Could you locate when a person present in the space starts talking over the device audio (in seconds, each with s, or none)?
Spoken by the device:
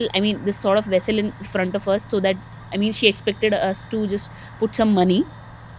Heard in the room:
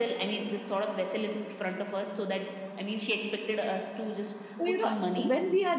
4.6 s